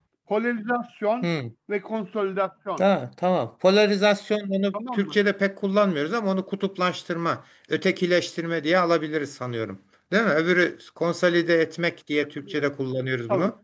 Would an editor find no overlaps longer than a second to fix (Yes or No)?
Yes